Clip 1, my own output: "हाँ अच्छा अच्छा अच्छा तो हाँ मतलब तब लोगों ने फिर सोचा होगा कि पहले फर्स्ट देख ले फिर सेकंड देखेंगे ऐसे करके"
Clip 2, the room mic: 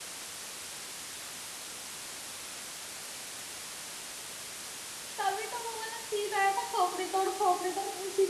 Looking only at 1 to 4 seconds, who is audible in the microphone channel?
neither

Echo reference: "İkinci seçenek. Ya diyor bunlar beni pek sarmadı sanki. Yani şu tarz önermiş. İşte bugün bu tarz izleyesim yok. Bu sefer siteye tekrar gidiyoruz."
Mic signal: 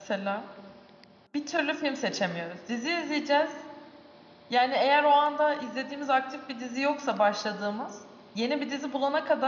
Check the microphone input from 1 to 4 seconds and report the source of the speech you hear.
user only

